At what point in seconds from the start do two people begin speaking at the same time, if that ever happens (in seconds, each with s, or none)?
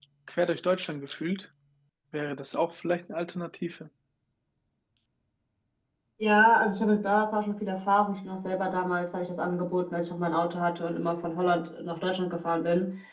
none